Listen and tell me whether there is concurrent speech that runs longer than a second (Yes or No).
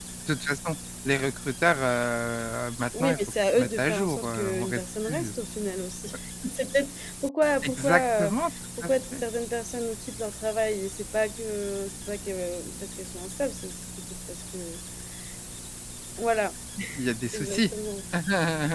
Yes